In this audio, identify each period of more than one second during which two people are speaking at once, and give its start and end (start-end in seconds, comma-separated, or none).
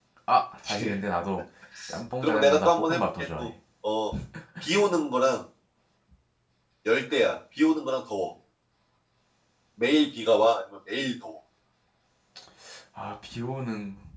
2.2-3.5